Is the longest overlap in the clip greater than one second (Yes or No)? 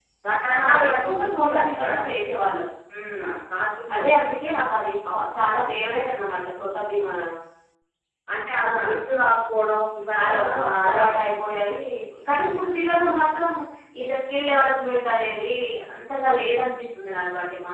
Yes